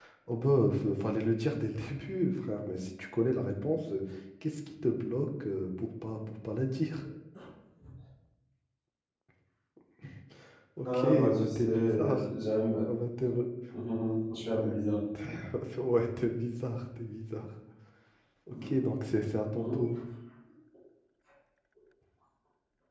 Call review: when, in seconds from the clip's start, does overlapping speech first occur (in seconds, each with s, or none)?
10.8 s